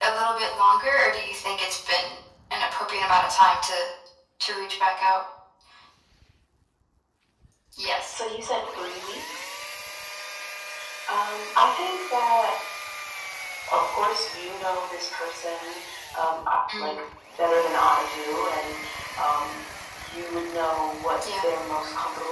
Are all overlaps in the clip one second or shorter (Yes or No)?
Yes